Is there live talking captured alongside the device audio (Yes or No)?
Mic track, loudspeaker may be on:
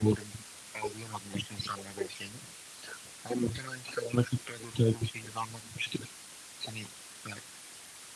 No